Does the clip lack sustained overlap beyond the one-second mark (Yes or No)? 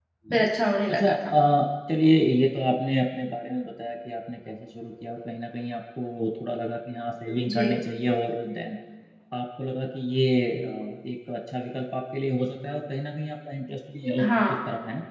Yes